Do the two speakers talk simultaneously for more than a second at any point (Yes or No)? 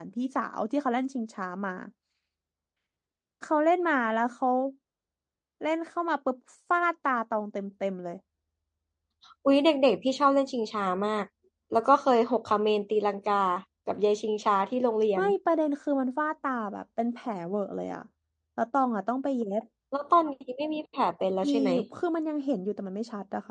No